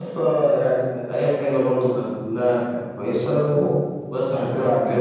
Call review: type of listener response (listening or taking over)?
listening